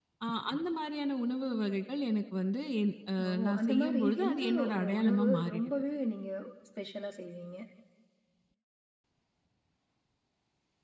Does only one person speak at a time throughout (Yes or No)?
No